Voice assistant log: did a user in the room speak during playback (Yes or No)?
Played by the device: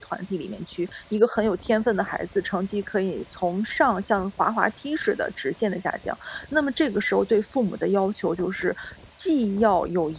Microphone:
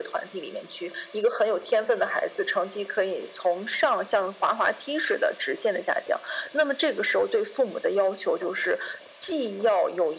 No